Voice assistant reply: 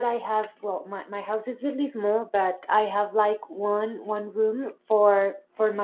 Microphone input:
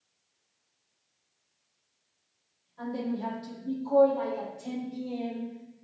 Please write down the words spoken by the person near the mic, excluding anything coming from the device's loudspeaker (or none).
and then we have to record like at 10 p.m